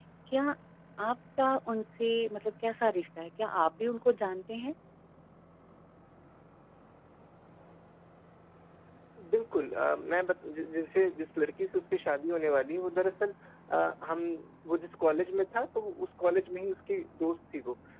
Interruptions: none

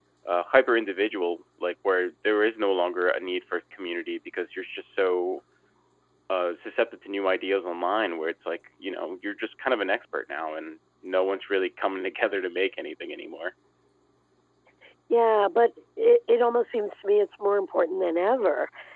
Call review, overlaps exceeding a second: none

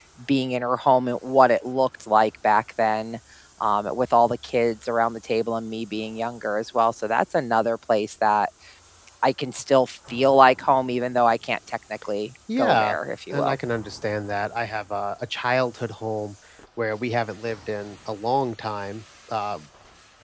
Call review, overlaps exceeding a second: none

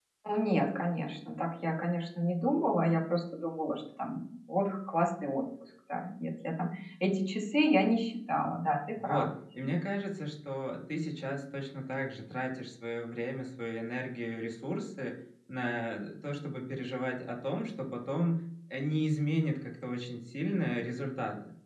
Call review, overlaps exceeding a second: none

